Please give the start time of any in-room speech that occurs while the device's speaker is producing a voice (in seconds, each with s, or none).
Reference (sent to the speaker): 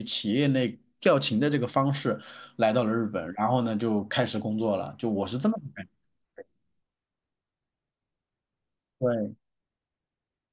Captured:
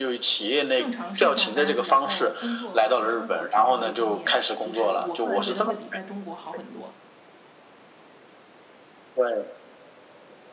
0.8 s